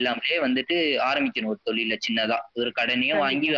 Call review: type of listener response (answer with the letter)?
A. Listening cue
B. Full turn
A